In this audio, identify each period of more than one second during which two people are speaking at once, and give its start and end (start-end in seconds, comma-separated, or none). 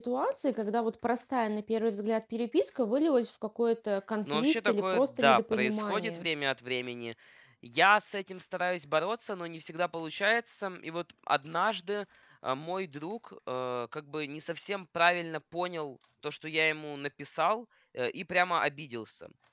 4.3-6.3